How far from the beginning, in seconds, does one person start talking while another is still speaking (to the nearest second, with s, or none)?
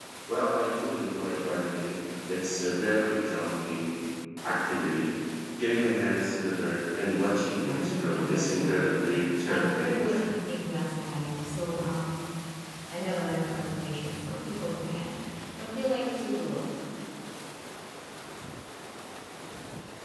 8 s